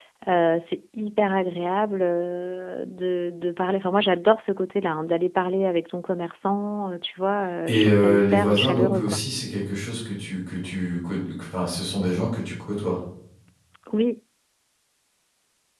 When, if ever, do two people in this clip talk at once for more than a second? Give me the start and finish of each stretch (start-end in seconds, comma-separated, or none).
7.7-9.2